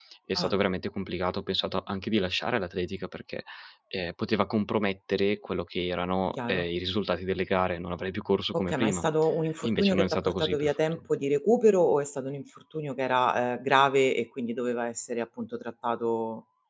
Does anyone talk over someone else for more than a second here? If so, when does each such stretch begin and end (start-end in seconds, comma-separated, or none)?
9.6-11.0